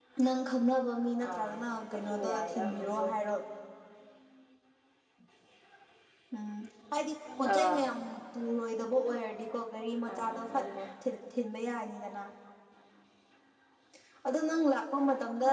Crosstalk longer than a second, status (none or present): present